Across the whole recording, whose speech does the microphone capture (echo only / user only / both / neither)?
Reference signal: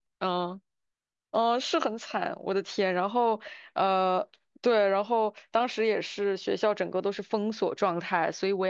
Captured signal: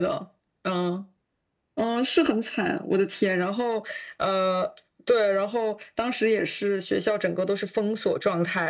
echo only